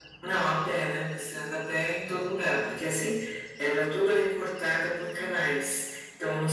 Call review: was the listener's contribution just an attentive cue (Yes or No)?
Yes